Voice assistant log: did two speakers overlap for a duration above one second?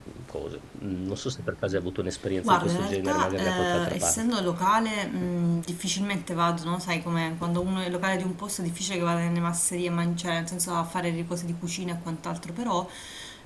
Yes, from 2.4 s

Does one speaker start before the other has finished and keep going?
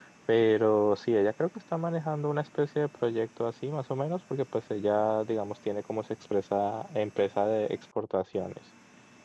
No

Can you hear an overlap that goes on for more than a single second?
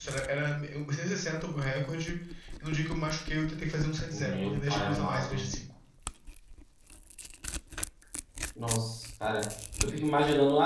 Yes, from 4.1 s

